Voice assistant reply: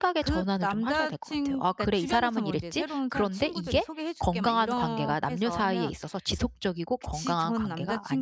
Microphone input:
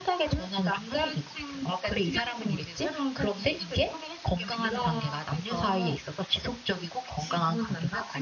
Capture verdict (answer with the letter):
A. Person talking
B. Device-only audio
B